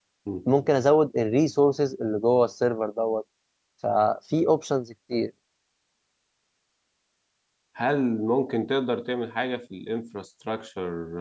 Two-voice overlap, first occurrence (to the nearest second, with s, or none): none